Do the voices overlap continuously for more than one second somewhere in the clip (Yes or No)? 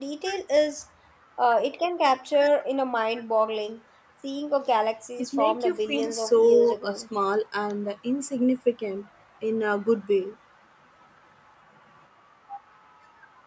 Yes